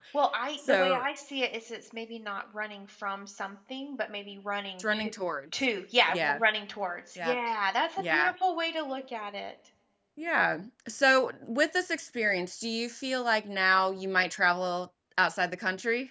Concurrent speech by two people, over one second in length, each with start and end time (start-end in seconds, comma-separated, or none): none